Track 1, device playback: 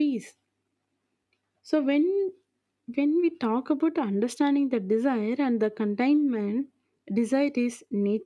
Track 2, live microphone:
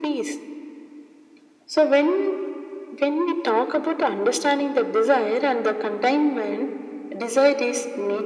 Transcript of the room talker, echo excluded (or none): none